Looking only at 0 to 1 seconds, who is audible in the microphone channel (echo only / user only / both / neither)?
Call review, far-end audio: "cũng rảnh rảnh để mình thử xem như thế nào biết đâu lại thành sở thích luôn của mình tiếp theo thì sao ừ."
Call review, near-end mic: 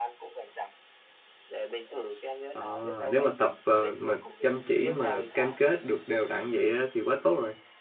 echo only